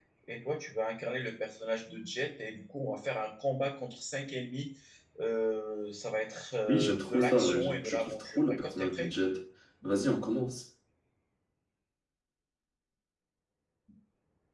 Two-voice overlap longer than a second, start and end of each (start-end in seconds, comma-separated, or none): 6.7-9.1